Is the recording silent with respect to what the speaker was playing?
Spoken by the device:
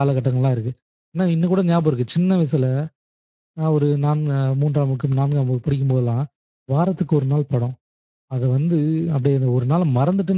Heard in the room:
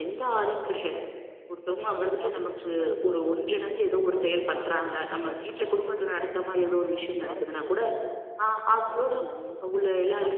No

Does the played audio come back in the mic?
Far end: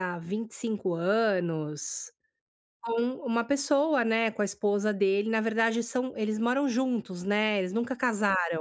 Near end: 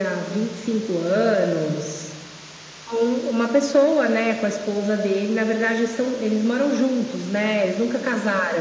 Yes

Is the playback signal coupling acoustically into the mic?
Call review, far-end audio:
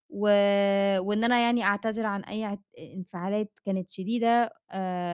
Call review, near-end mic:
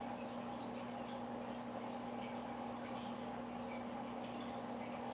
No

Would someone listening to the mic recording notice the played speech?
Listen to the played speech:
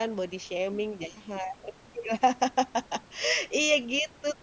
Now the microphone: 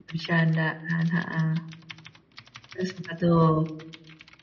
No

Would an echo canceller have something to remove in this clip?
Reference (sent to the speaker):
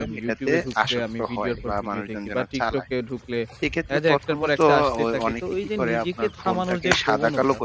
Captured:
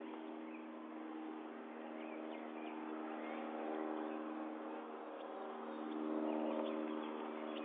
No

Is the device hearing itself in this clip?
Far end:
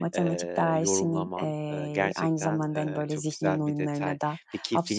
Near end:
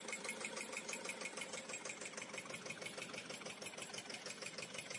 No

